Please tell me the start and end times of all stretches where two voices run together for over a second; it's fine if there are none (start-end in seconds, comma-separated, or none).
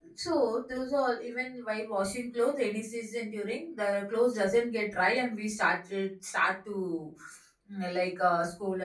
none